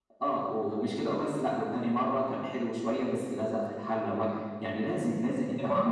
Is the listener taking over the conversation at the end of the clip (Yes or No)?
Yes